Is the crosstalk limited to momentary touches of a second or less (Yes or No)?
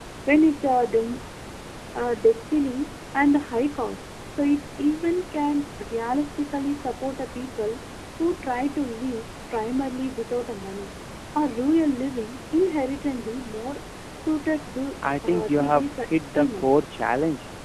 No